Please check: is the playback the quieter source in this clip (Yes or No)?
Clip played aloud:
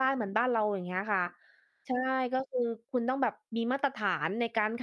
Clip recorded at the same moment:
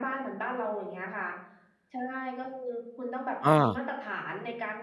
Yes